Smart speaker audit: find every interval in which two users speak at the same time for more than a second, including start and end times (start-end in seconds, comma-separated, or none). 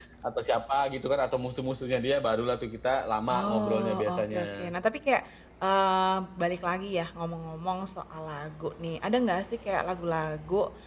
3.3-4.7